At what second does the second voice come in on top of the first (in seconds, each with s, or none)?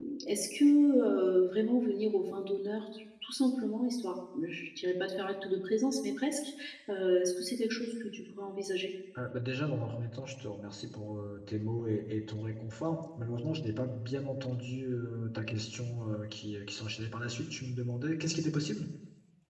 none